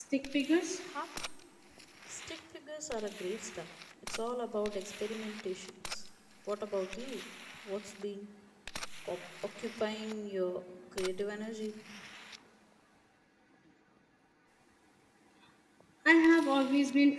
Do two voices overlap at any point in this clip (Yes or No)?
No